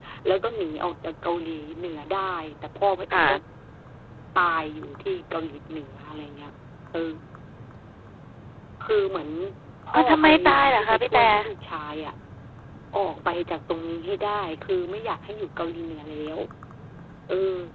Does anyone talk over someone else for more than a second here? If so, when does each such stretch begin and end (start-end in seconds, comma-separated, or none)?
9.9-11.2